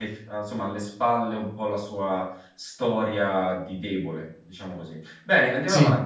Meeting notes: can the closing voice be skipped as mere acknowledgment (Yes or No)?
Yes